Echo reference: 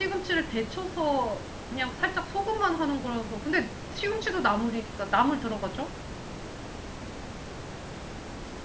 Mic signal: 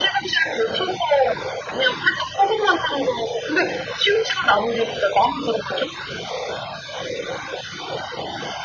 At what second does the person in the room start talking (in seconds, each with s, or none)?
none